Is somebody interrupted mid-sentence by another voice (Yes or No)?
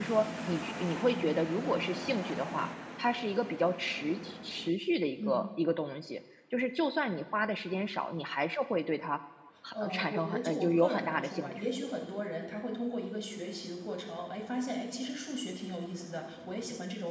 Yes